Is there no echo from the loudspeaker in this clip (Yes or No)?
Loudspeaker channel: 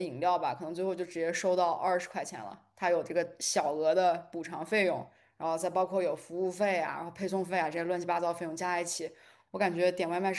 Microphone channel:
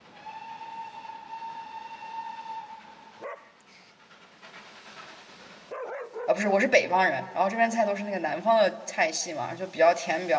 Yes